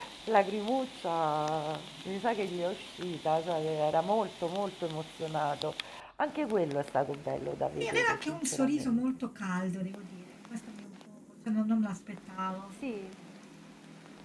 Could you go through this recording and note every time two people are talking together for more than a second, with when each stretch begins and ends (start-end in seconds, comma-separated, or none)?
7.8-9.2